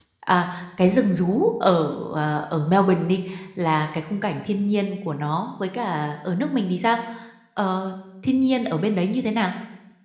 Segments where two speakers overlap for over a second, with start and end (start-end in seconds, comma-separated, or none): none